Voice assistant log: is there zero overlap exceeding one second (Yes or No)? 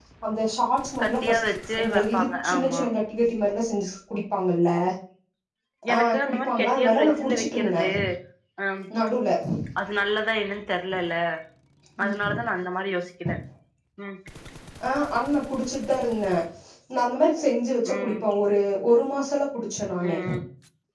No